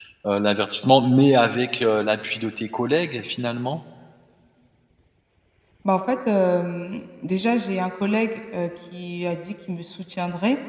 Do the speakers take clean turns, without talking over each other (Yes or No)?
Yes